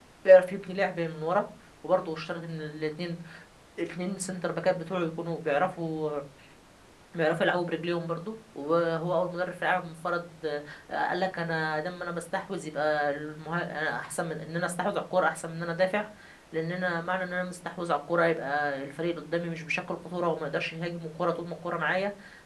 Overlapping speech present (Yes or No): No